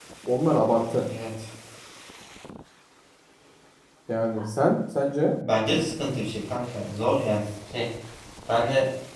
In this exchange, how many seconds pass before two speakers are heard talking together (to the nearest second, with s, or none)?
none